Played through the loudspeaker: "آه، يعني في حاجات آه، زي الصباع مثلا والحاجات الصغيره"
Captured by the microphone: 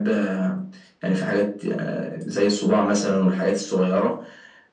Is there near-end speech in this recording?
No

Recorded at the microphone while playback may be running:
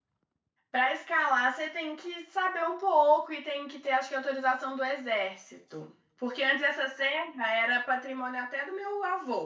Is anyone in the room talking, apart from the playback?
Yes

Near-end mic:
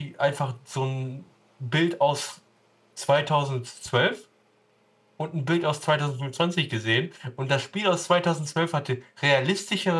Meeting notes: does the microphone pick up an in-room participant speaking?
Yes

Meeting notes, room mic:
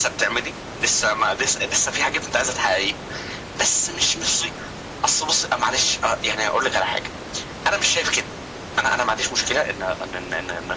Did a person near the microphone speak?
No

